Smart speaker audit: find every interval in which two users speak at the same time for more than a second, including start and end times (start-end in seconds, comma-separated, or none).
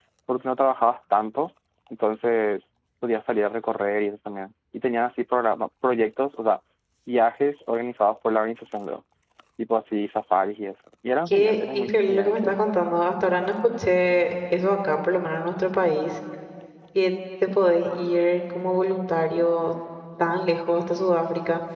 11.3-12.6